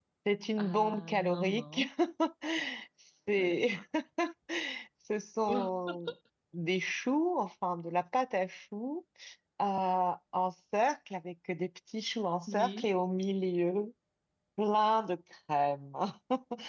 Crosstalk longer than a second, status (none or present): present